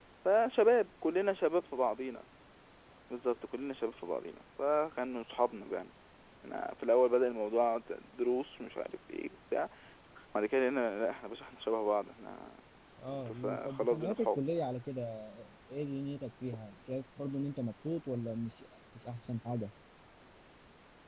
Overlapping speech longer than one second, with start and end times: 13.1-14.4

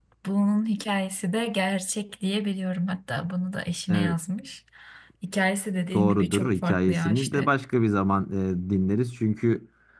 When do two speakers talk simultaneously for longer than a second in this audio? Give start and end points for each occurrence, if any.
5.9-7.5

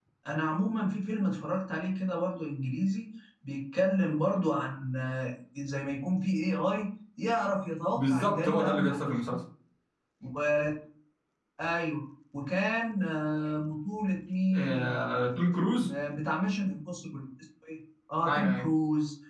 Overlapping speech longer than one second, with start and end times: 7.9-9.2

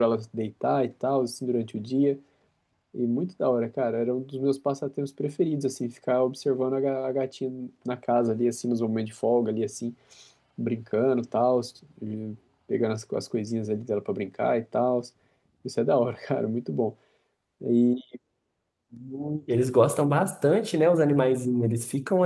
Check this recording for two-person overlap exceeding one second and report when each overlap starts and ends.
none

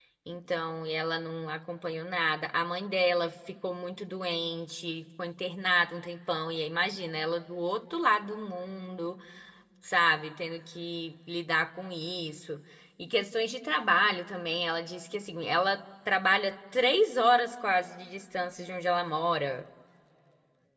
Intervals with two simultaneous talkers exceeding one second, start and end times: none

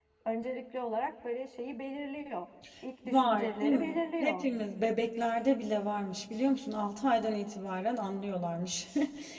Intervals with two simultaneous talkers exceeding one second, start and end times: 3.1-4.5

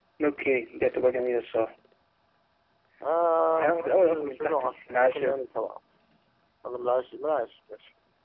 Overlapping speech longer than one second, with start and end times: 3.6-5.4

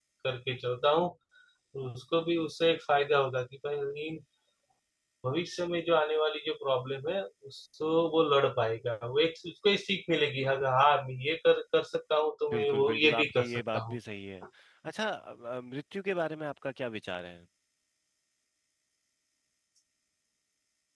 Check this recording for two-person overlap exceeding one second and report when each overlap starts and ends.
12.5-14.0

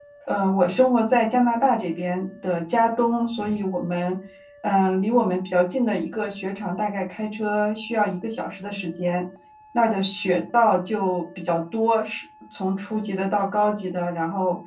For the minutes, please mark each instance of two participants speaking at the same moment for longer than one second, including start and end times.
none

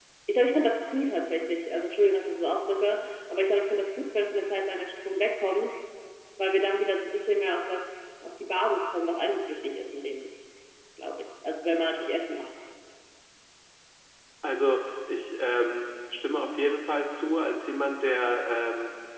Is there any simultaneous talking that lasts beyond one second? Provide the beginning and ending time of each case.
none

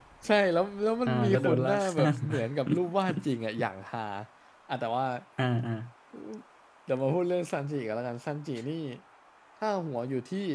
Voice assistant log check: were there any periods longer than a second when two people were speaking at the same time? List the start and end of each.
1.1-2.4

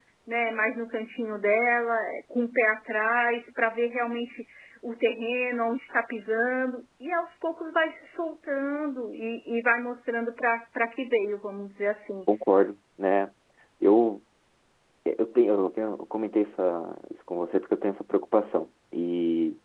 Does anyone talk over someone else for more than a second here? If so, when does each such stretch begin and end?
none

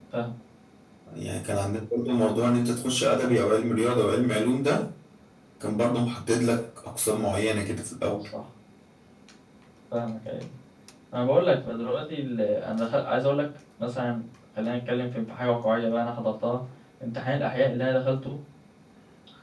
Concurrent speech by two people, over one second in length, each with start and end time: none

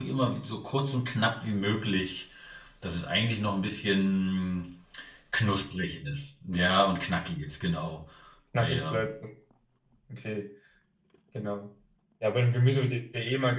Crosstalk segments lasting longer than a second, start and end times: none

